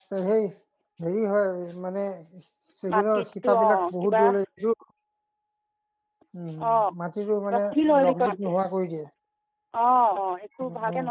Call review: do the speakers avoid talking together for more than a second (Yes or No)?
No